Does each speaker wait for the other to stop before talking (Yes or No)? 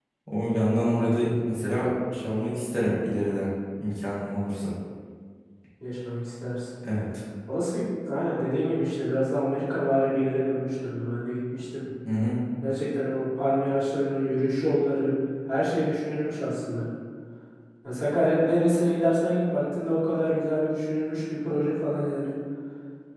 Yes